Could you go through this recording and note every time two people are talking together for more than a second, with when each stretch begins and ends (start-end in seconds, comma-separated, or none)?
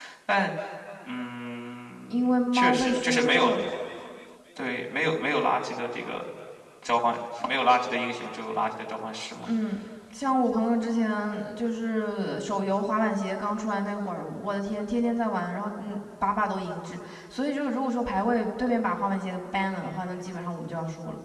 2.1-3.5